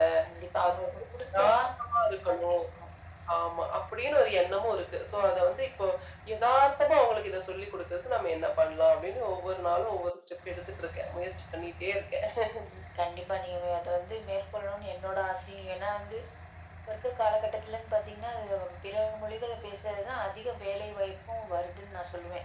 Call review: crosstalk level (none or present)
present